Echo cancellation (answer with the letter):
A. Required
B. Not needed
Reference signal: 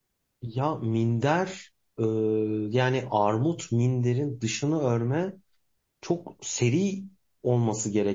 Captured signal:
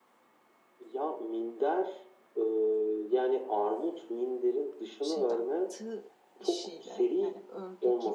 A